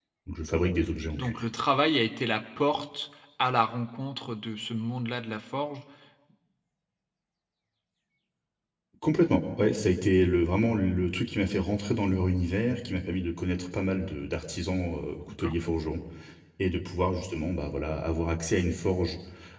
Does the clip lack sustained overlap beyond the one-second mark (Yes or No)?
Yes